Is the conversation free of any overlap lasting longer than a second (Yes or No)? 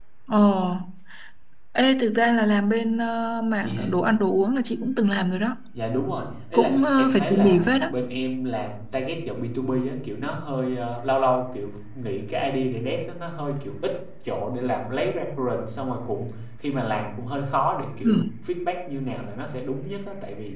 No